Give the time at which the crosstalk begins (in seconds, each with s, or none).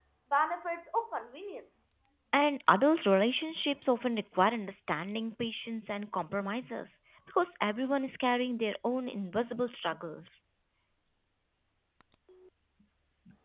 none